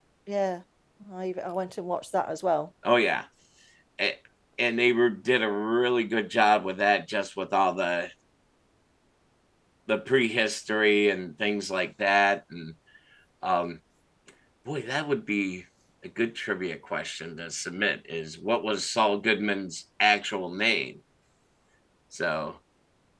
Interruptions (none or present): none